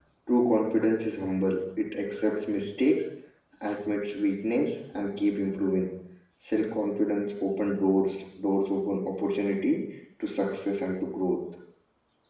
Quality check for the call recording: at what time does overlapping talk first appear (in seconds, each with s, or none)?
none